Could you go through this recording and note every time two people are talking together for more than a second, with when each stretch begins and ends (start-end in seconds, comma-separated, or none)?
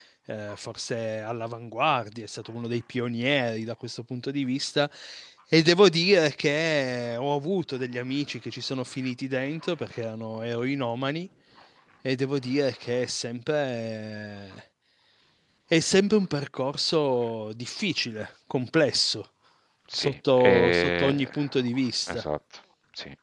19.9-21.3